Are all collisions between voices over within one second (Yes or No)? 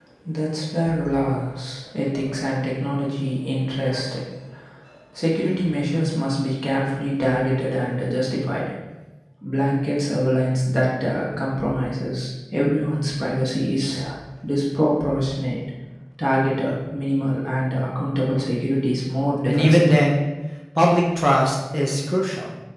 Yes